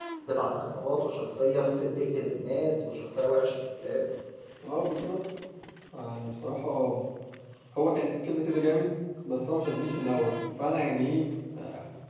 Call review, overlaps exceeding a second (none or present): none